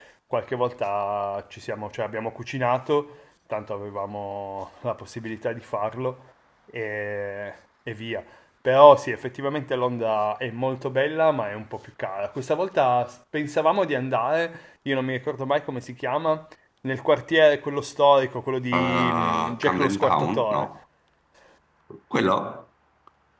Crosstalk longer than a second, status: present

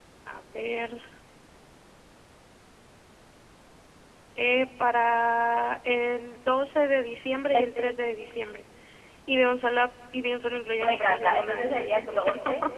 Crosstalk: present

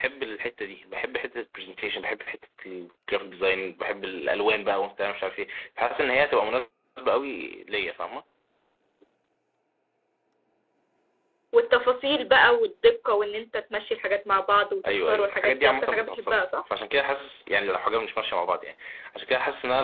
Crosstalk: present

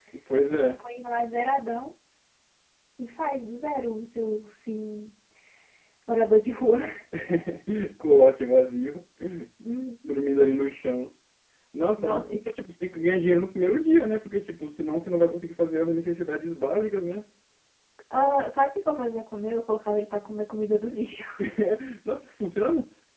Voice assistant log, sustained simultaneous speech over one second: none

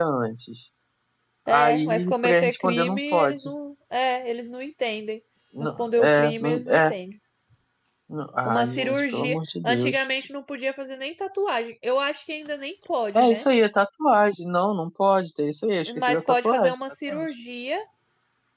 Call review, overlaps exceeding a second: present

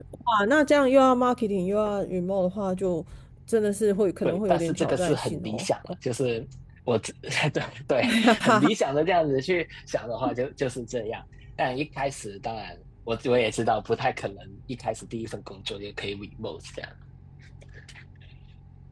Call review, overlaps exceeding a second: present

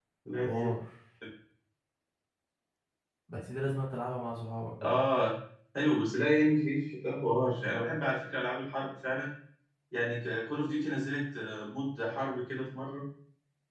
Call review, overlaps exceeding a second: none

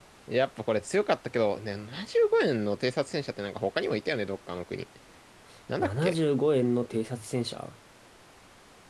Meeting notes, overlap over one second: none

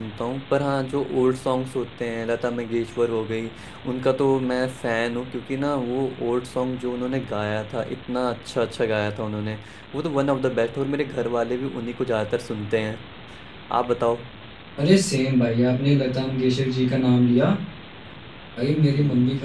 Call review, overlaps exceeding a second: none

